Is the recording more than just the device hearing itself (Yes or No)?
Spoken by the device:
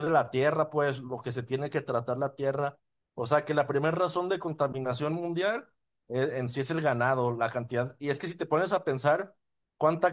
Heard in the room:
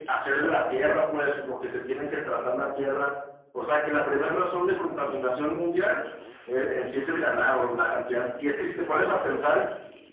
No